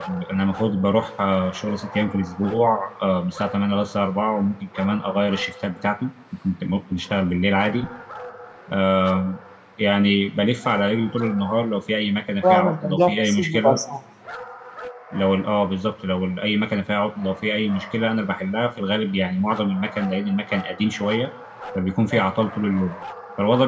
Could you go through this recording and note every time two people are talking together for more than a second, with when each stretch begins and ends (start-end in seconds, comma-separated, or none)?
12.5-13.8